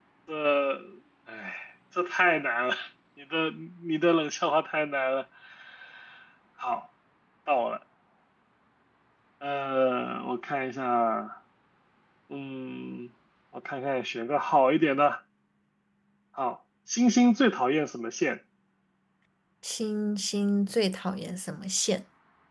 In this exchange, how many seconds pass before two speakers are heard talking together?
none

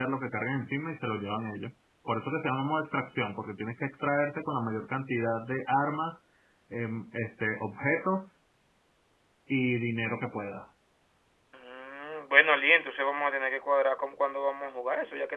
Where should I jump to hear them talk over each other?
none

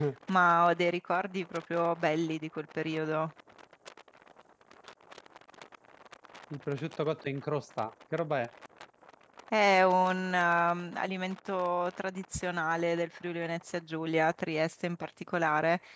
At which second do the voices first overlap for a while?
none

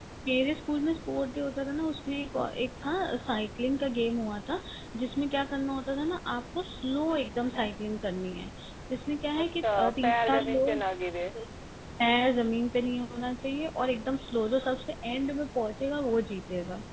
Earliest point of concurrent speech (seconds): 9.4 s

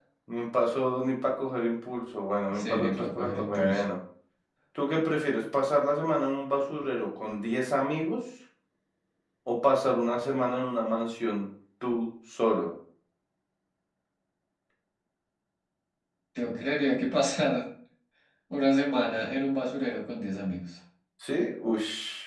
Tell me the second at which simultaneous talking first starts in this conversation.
2.5 s

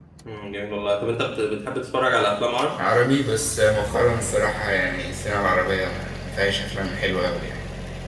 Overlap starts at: none

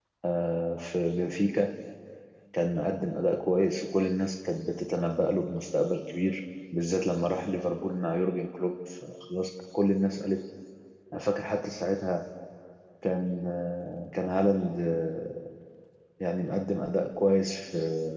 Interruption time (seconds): none

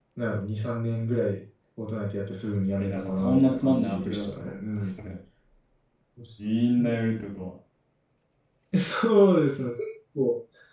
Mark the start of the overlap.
2.8 s

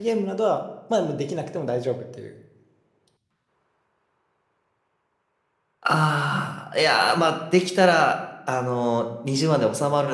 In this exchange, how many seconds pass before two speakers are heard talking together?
none

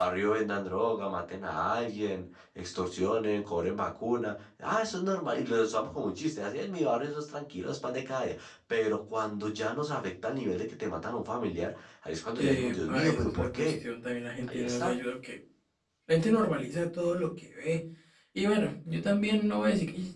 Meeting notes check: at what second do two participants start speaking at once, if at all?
12.4 s

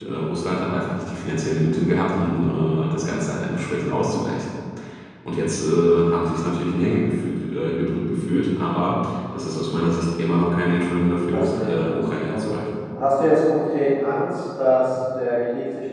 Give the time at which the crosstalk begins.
11.3 s

